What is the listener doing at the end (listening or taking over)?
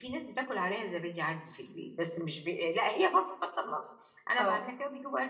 listening